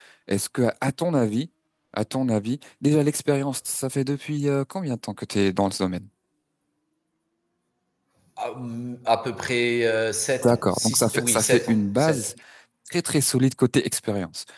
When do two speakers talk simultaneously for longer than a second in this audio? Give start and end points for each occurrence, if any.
10.4-12.3

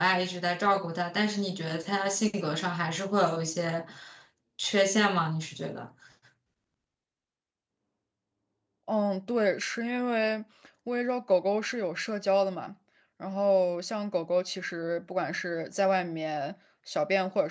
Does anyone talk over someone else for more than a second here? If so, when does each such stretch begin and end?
none

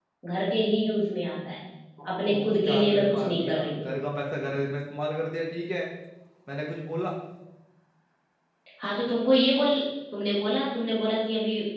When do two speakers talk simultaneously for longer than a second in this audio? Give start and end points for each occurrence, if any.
2.3-3.9

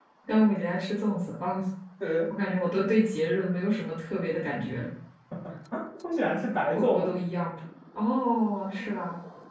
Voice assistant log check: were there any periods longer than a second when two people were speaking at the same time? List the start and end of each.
none

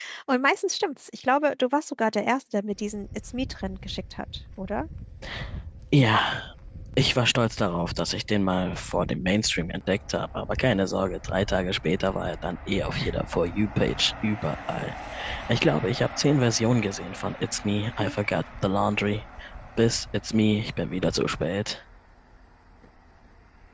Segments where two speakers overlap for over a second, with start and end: none

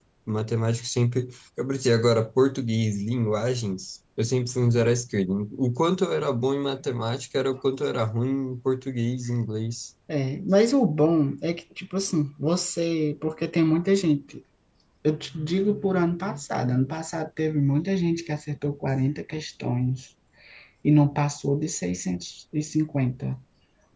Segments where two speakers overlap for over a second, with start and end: none

